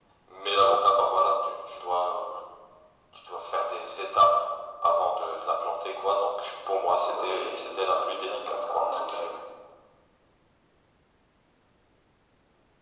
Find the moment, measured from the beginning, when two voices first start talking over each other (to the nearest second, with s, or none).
7 s